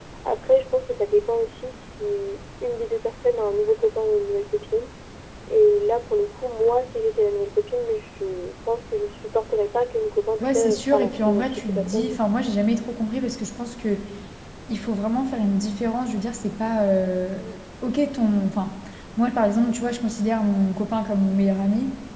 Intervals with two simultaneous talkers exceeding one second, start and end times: 10.4-12.2

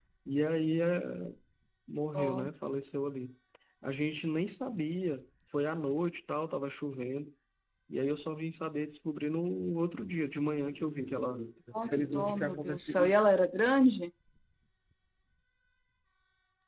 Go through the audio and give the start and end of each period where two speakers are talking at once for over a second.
11.9-13.3

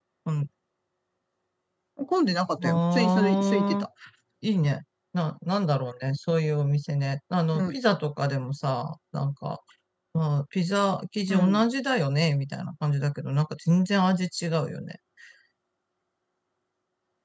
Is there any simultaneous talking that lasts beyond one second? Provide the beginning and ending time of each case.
2.6-3.9

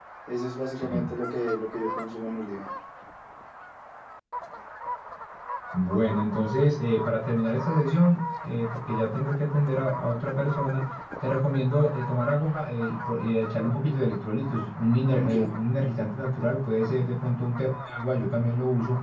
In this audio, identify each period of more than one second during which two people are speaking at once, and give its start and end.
none

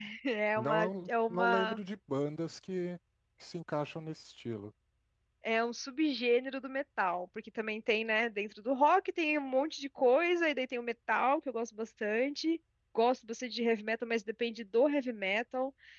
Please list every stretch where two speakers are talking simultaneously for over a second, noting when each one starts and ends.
0.6-1.8

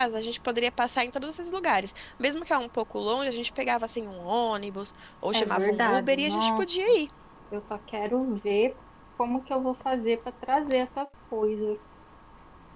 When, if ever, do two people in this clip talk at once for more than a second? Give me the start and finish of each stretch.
5.3-7.0

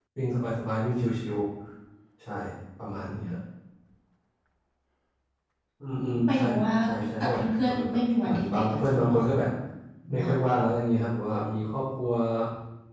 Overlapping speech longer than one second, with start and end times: 7.2-9.4

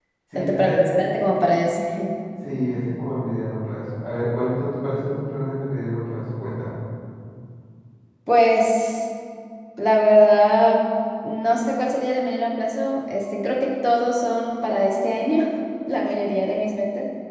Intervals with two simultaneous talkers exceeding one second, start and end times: none

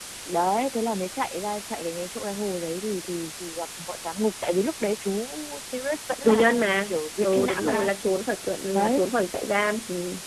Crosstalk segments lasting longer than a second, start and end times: 6.2-7.9

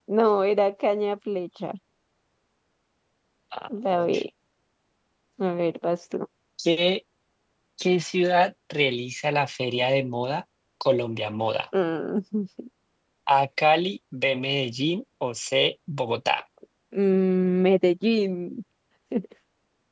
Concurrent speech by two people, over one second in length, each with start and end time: none

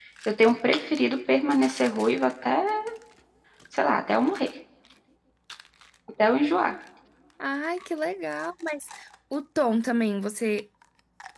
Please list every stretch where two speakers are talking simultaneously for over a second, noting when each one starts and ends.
none

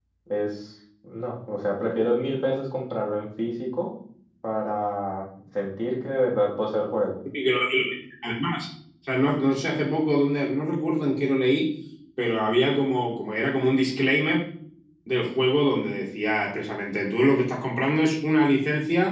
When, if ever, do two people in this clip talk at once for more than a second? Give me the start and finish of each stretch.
none

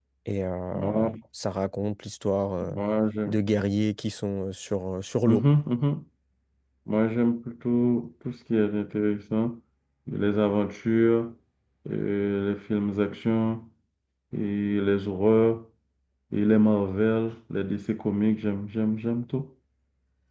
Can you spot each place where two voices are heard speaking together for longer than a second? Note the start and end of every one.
none

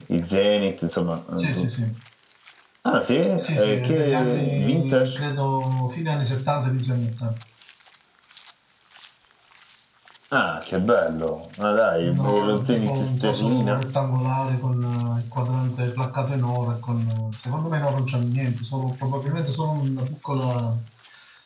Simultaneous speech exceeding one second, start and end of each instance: 3.4-5.2, 12.0-13.8

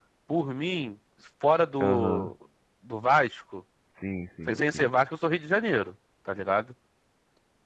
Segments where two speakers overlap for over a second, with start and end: none

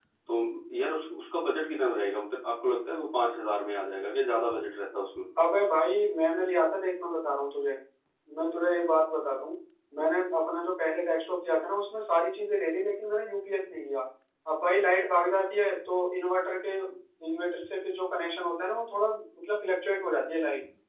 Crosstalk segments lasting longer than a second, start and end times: none

